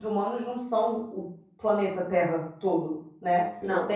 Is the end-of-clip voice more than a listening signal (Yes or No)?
No